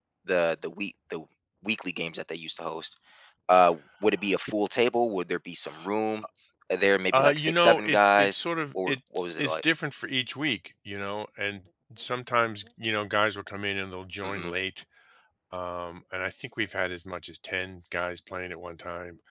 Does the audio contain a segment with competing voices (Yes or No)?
Yes